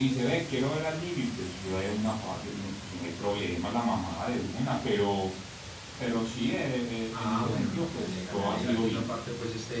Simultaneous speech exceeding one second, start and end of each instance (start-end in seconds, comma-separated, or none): 7.1-9.1